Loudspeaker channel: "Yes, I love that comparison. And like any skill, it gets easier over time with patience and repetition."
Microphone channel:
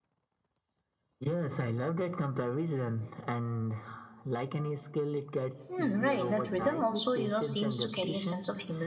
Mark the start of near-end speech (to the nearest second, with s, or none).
6 s